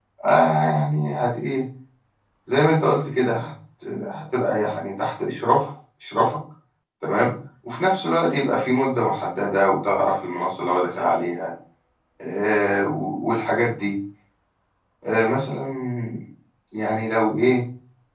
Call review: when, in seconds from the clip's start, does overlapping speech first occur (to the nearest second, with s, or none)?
none